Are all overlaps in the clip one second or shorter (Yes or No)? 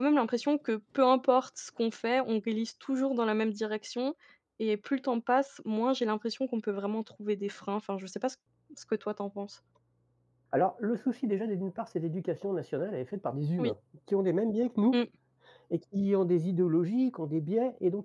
Yes